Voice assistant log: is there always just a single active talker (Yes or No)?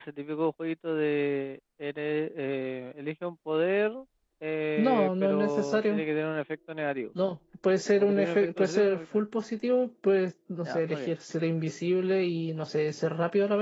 No